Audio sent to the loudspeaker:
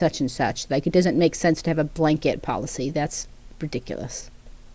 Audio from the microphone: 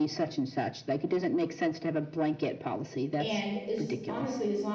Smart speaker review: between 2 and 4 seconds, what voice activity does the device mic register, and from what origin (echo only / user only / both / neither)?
both